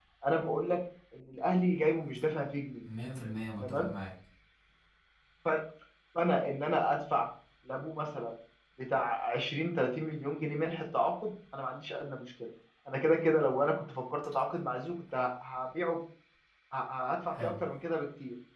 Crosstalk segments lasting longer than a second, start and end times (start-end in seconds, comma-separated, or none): none